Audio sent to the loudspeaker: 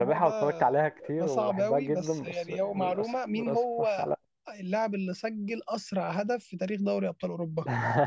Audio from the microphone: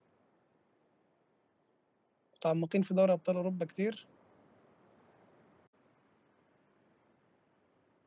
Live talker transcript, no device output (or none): متعمقين في دوري ابطال اوروبا كتير